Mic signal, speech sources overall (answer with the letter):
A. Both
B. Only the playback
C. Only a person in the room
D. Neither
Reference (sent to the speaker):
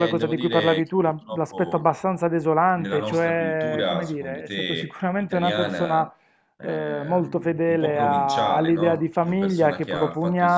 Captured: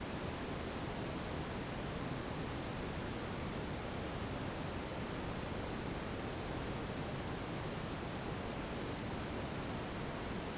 D